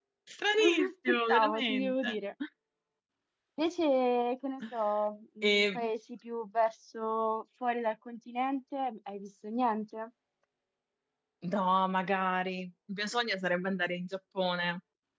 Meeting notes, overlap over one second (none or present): present